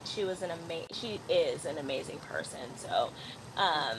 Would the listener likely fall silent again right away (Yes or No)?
Yes